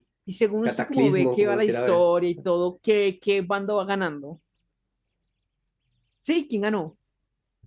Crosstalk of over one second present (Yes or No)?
Yes